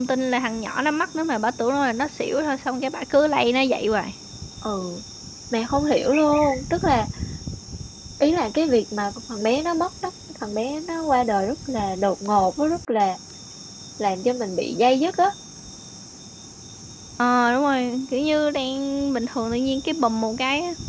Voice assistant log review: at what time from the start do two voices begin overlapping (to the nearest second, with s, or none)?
none